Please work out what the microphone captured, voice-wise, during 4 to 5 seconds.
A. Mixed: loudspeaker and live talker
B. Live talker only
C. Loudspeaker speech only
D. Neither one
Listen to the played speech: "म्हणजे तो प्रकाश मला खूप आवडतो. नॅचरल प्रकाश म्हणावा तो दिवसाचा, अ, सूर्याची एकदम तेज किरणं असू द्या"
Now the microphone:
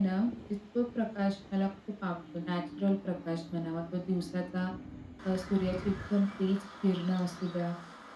C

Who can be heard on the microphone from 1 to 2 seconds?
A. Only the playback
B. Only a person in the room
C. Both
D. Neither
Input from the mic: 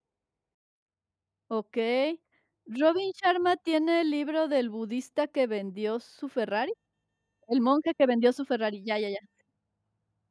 B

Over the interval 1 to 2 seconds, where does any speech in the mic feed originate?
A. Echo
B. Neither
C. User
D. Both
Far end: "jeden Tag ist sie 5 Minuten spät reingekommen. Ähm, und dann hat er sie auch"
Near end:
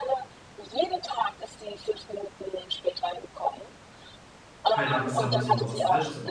A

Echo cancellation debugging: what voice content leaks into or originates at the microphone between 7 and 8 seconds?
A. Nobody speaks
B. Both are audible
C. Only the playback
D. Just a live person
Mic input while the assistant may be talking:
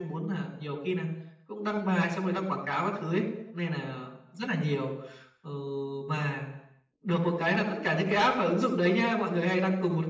C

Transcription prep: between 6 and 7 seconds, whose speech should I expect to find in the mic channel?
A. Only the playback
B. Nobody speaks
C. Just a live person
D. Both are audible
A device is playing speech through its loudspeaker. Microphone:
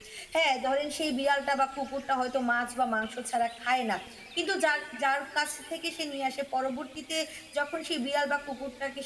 C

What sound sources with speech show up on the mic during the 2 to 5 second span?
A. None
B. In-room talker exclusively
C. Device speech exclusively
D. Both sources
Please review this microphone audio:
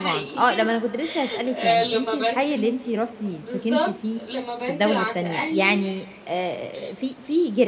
D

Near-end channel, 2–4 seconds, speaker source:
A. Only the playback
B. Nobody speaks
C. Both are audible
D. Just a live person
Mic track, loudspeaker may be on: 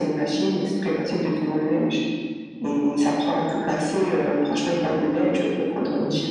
A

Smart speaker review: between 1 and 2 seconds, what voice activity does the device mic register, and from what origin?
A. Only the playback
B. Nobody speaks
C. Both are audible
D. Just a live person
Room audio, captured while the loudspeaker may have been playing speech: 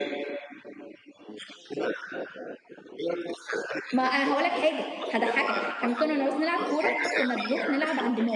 A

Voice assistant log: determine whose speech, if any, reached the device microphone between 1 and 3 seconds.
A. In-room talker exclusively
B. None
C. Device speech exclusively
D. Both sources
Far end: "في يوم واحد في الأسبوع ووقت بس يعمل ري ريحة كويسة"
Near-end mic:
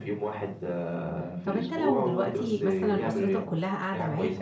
D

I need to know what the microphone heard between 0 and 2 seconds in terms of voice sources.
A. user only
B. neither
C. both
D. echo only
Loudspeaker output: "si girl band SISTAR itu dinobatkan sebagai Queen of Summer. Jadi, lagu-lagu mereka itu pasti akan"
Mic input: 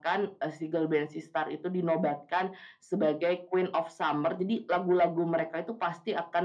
D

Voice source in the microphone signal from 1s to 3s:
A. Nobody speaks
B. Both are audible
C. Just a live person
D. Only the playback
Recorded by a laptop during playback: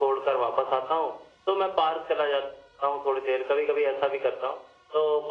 D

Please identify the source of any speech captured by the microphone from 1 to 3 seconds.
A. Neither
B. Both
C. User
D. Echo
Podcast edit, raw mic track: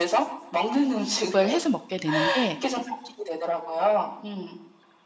B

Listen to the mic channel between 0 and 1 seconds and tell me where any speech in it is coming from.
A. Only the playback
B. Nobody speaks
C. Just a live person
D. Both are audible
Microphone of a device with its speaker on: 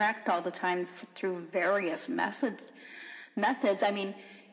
A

